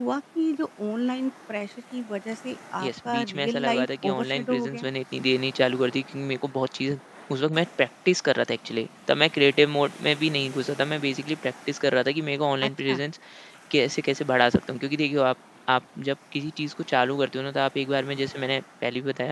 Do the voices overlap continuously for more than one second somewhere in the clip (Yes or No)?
Yes